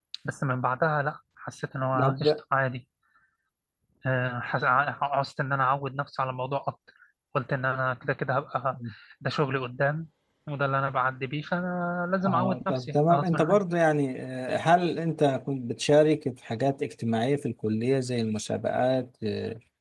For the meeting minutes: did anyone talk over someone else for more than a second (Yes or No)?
Yes